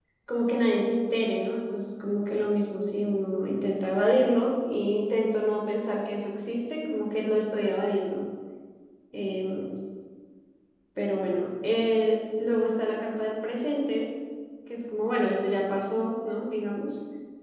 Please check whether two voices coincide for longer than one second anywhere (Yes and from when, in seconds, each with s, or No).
No